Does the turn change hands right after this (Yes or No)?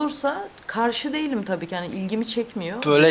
Yes